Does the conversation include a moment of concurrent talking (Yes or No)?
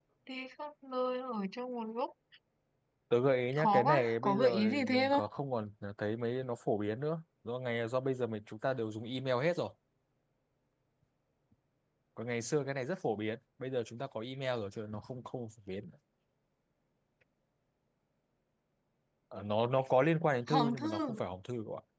Yes